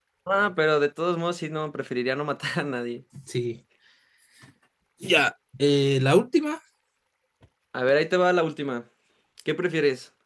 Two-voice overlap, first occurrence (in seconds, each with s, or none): none